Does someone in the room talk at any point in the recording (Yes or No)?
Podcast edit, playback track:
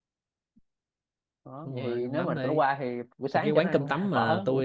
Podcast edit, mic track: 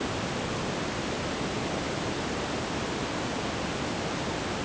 No